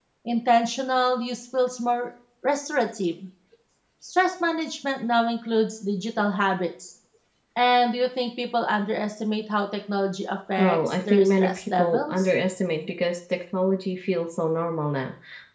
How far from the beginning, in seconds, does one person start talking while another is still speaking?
10.6 s

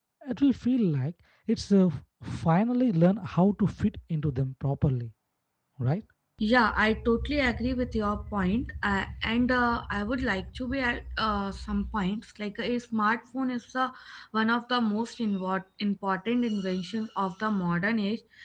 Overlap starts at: none

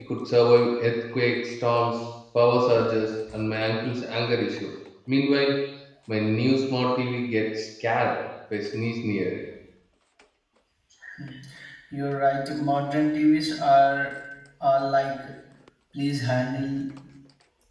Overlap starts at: none

